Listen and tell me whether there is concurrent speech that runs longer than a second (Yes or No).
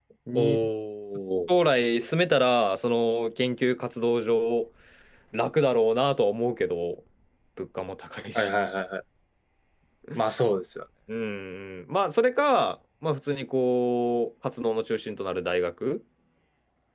No